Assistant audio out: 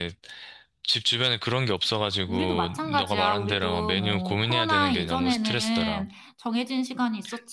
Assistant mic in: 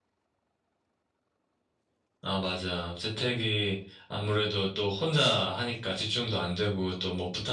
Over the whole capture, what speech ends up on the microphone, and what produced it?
user only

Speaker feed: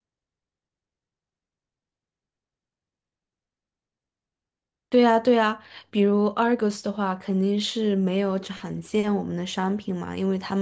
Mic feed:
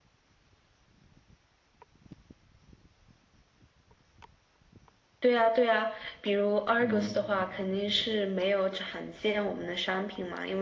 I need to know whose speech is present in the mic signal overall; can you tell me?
both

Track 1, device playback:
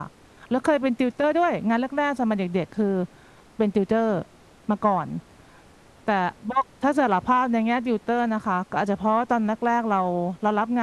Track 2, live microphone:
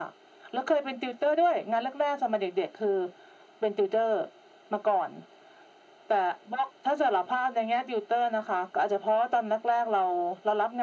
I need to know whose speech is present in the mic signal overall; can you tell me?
echo only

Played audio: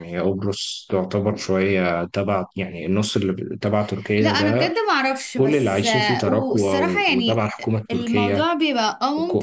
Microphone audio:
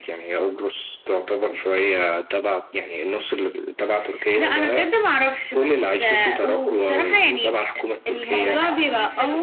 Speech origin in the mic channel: both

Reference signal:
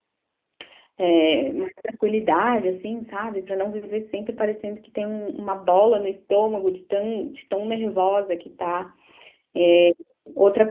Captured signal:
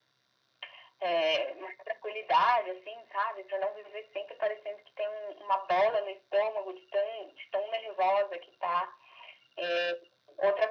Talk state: echo only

